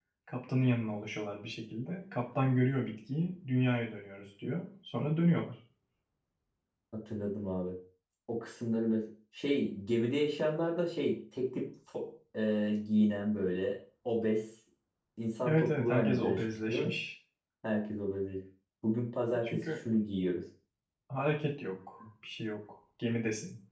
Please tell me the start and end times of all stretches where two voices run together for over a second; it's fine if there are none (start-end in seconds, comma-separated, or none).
15.4-16.9